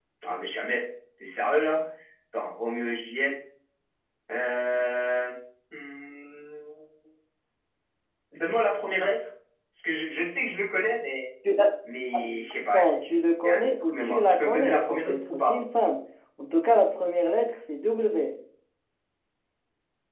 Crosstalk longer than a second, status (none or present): present